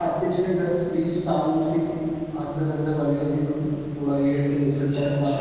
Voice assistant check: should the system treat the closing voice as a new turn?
No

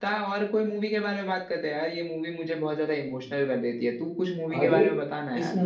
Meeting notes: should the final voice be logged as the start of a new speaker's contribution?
Yes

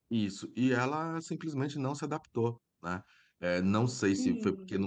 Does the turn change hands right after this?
No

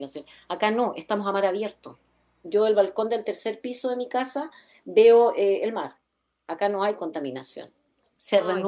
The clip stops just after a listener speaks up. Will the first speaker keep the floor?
No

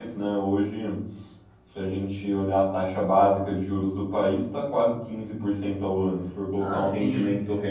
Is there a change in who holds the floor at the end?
Yes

